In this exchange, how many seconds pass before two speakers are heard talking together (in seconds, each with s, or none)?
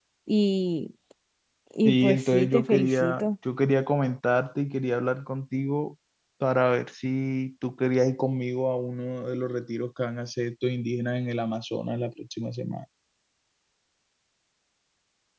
1.8 s